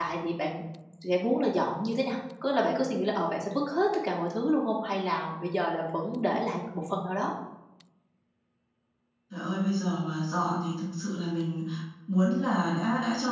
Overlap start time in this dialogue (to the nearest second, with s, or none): none